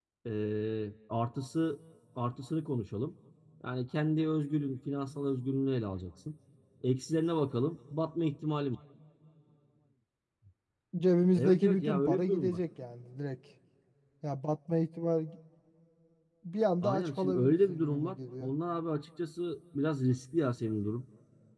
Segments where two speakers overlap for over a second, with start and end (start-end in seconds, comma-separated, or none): 11.3-12.6, 16.8-18.5